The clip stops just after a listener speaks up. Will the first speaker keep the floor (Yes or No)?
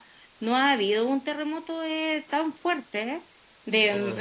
Yes